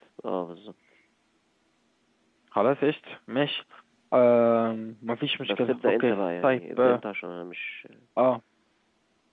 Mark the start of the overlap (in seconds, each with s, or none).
5.4 s